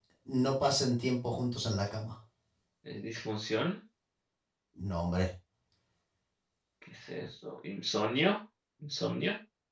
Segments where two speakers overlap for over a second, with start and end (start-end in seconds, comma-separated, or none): none